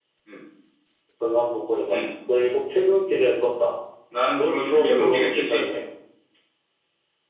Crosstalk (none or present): present